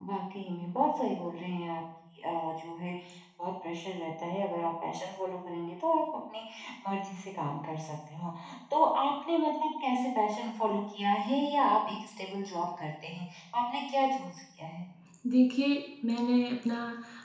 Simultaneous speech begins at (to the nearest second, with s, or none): none